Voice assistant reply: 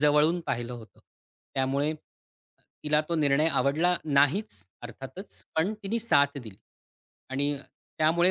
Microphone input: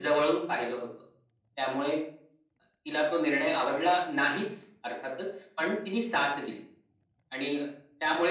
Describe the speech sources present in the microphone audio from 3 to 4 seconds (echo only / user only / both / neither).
echo only